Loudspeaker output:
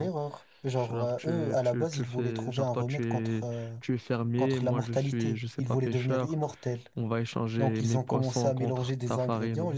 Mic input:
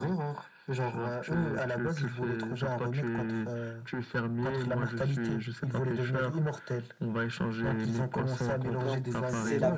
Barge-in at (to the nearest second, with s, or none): 9 s